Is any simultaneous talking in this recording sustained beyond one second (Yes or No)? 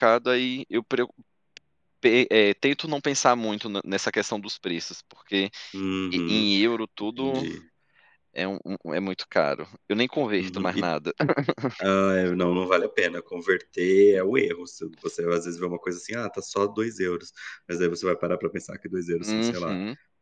No